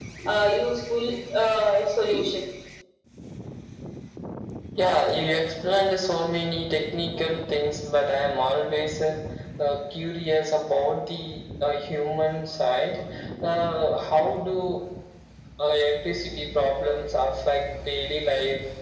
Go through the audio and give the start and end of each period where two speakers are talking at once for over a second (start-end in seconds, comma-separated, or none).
none